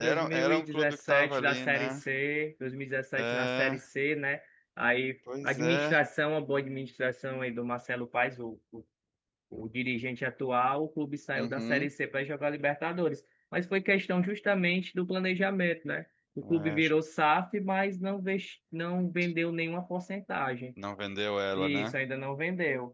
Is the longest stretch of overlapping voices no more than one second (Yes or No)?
No